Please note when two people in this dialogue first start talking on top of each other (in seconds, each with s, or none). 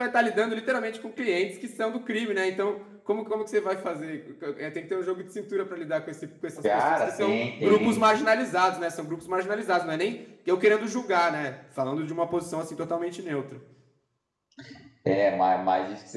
6.6 s